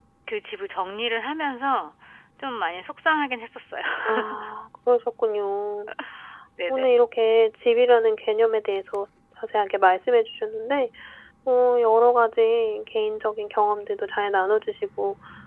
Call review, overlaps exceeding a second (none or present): none